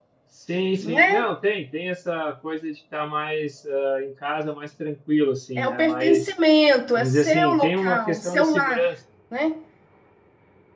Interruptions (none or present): present